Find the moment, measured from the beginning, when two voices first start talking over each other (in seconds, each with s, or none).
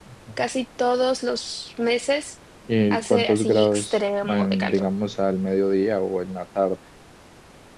2.9 s